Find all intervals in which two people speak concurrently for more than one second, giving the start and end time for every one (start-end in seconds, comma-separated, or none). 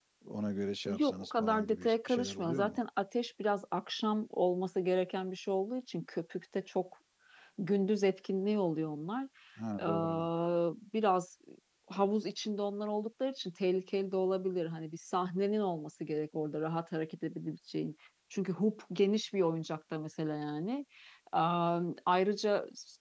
0.9-2.8